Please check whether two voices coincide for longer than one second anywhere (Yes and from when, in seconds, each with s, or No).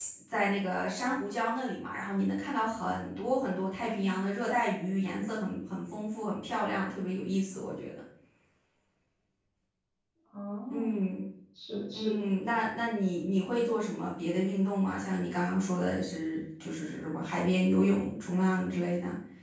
No